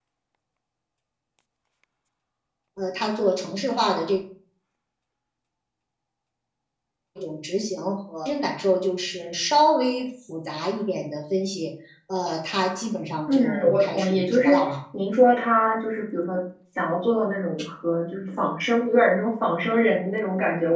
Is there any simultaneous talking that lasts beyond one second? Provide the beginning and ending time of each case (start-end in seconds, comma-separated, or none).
13.3-14.6